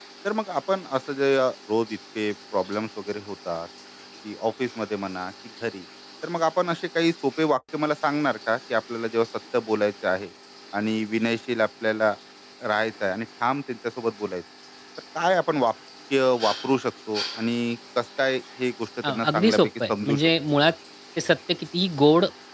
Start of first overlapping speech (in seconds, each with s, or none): 19.0 s